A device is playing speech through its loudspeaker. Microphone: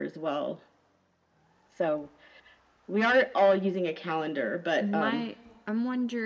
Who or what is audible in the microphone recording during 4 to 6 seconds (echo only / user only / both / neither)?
both